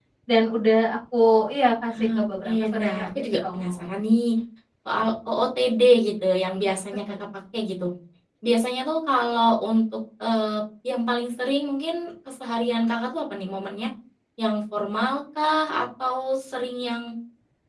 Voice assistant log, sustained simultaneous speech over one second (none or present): present